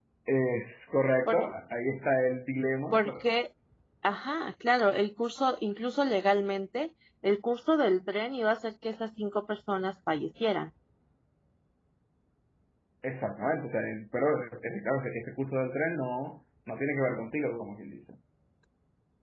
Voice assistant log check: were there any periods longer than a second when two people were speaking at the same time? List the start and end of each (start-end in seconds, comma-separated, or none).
none